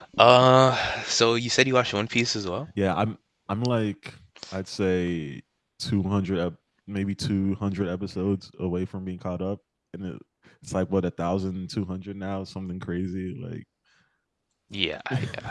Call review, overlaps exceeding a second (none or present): none